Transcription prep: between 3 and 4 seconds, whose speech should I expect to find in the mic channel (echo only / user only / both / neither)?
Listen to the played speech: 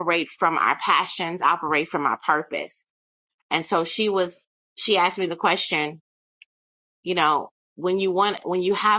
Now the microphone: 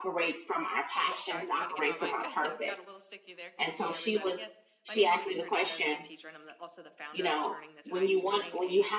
both